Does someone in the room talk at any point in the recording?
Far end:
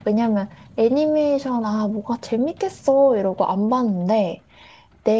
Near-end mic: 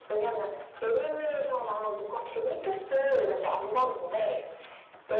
No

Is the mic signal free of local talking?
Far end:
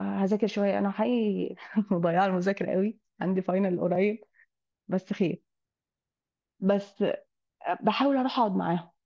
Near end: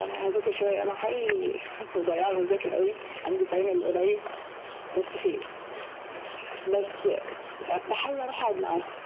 Yes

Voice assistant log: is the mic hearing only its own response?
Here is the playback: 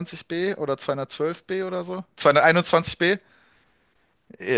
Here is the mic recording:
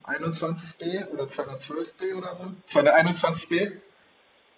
Yes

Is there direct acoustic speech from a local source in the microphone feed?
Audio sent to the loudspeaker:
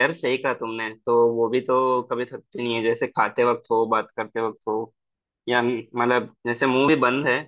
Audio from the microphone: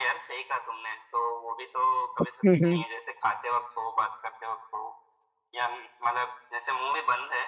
Yes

